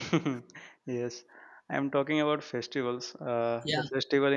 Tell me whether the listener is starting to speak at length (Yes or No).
No